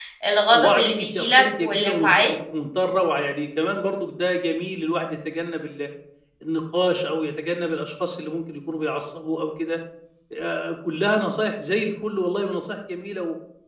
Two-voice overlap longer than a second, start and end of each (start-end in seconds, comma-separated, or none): 0.5-2.3